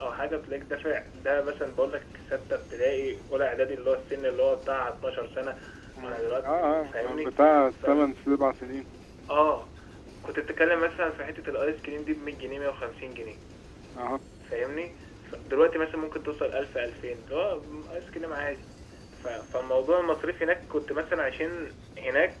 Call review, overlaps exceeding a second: present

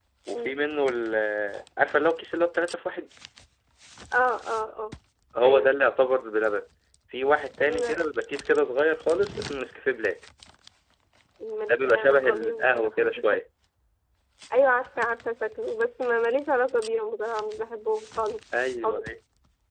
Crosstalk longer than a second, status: present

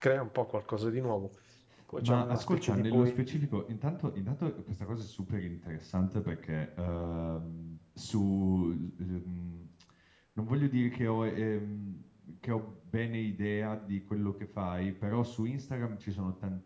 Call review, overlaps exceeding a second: present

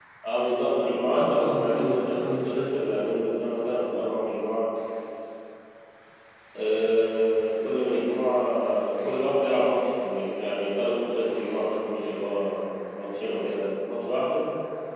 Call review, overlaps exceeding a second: present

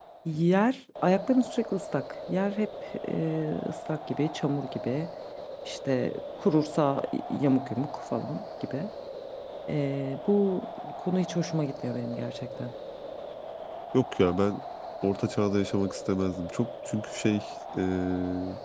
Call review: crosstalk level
none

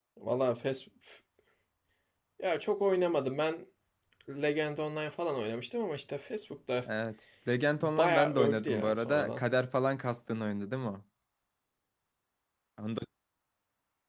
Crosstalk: present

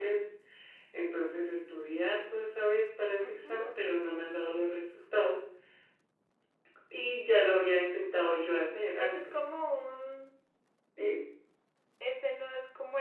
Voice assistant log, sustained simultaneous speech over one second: none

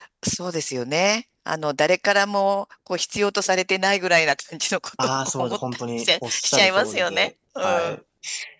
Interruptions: present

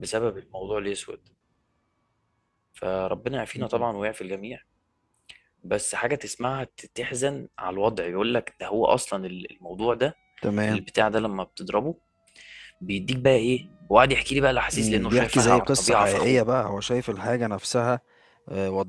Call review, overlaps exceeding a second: present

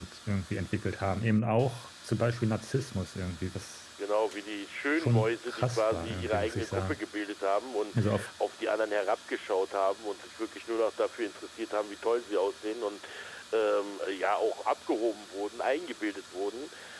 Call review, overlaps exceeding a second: present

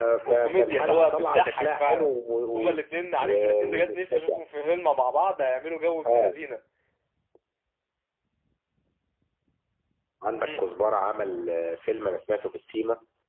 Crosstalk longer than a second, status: present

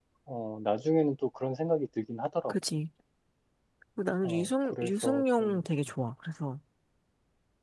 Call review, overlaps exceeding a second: present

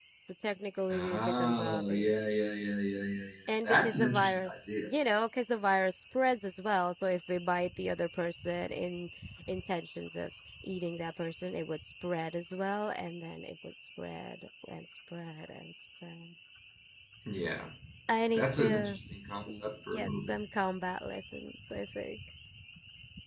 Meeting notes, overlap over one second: present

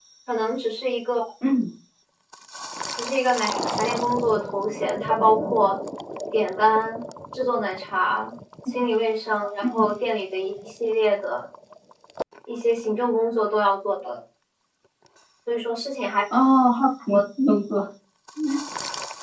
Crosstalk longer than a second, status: none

